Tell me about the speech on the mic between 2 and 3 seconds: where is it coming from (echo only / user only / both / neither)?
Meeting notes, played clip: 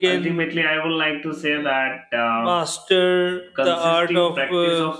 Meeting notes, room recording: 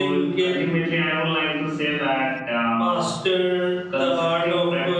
echo only